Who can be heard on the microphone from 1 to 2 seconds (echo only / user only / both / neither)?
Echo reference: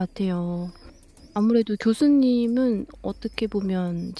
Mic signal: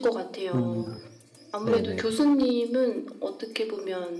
both